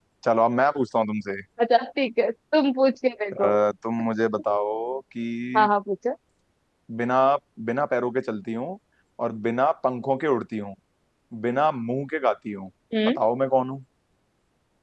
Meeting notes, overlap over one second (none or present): none